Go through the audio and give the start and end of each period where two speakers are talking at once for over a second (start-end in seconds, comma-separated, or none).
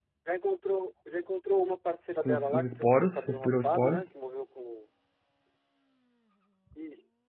2.2-4.0